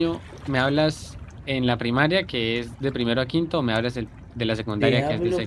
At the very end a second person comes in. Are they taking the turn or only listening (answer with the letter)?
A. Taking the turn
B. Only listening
A